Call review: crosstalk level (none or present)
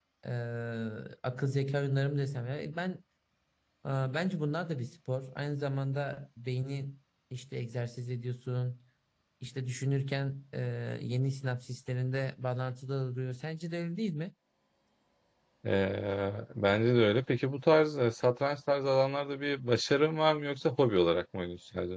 none